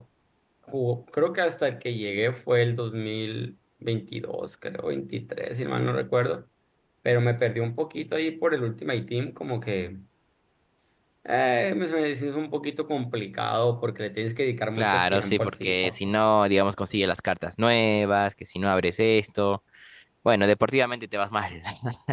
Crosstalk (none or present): present